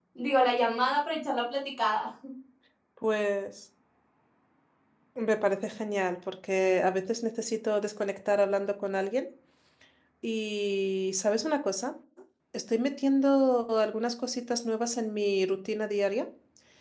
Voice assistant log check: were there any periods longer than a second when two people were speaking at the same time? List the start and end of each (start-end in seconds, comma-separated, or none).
none